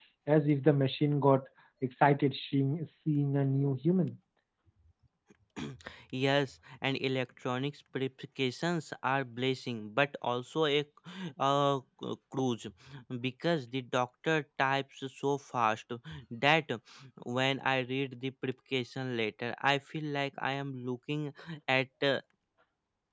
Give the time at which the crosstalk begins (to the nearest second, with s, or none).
none